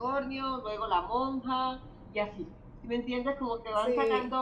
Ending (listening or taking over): listening